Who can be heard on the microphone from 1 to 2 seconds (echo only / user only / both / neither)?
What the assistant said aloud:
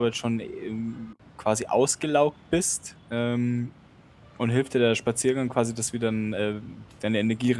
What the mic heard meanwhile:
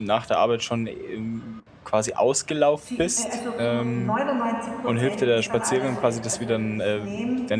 echo only